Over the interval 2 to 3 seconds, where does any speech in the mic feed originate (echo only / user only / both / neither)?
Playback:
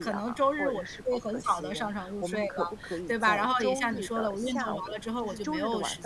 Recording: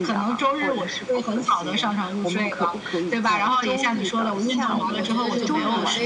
echo only